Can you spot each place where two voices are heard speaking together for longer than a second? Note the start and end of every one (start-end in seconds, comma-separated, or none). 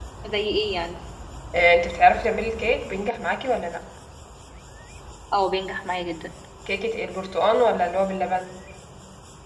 none